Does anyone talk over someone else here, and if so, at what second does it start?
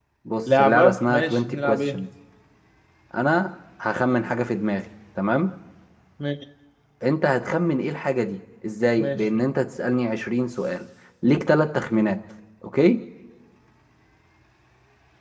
1 s

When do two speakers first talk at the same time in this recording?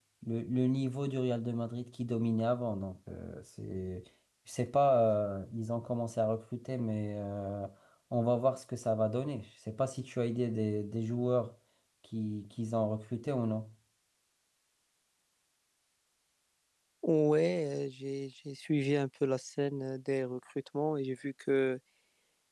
none

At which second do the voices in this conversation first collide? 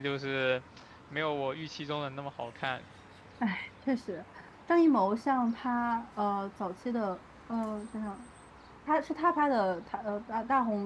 none

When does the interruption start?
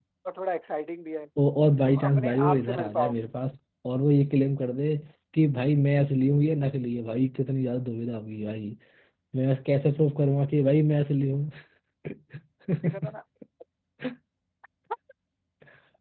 2 s

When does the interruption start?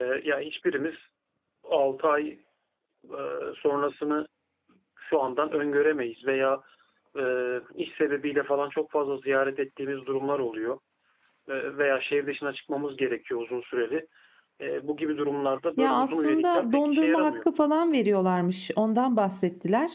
16 s

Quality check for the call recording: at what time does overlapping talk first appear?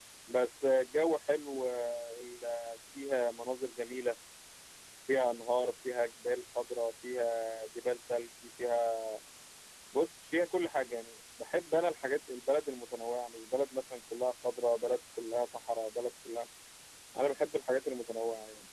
none

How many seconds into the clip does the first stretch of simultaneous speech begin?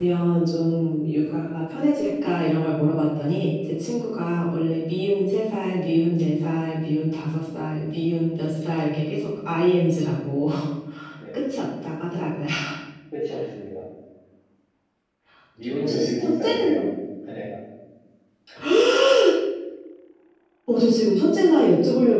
16 s

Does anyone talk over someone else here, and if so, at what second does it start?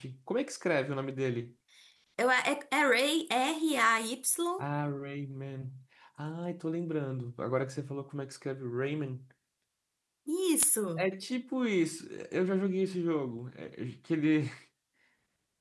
none

